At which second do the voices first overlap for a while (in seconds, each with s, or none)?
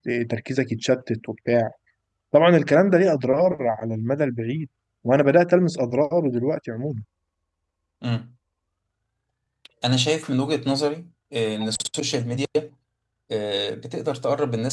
none